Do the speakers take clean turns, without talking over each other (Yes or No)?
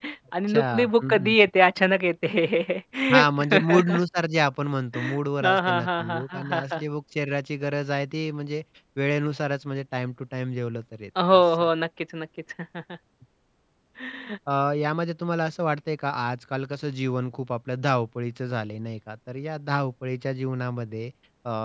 No